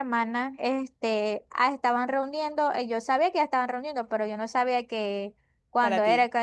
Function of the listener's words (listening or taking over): listening